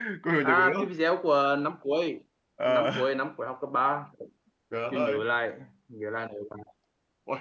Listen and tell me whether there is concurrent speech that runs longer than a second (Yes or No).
No